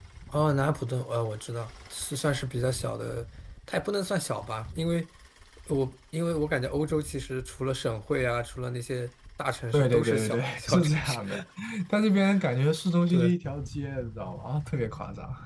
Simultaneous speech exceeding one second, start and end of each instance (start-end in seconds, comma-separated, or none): 9.7-11.2